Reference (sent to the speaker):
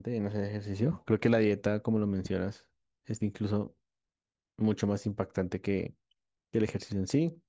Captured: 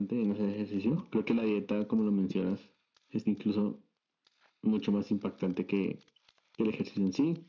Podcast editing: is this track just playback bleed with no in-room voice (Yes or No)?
Yes